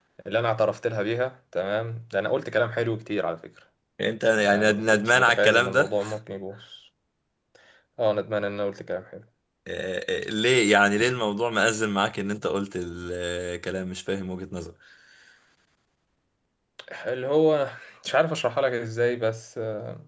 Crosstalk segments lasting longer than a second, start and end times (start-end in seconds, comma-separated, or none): 4.4-5.9